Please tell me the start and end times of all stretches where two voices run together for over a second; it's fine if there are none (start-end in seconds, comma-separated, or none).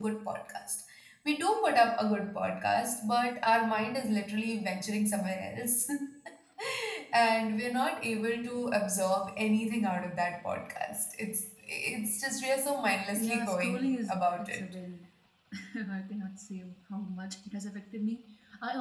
13.2-14.6